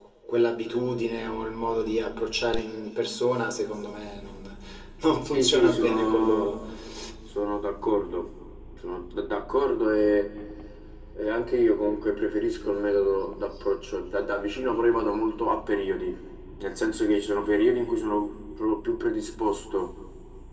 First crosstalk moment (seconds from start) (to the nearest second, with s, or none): 5 s